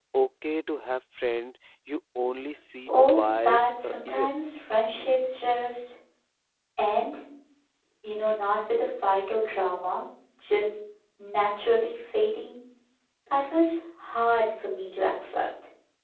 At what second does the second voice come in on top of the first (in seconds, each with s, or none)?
2.9 s